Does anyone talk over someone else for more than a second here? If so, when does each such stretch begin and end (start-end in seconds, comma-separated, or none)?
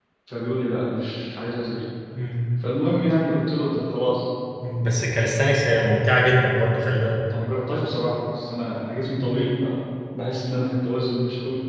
none